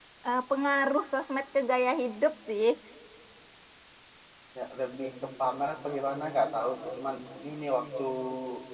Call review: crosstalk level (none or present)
none